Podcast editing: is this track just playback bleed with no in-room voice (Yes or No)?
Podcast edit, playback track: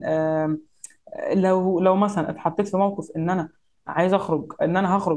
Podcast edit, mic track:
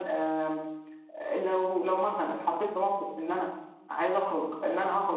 Yes